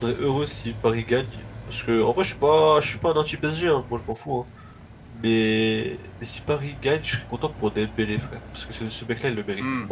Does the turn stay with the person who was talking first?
Yes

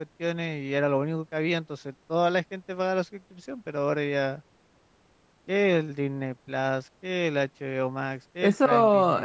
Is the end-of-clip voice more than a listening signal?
Yes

